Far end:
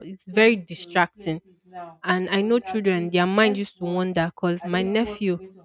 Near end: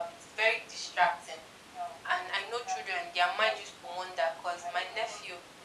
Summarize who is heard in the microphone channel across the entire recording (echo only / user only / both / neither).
echo only